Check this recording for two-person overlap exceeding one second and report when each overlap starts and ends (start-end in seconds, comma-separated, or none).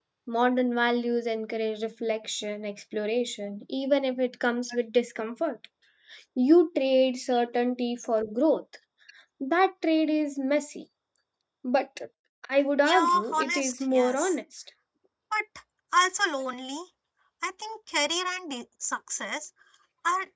12.8-14.3